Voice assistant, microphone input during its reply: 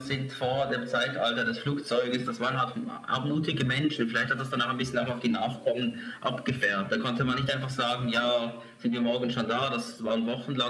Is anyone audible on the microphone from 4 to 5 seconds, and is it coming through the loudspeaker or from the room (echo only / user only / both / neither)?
echo only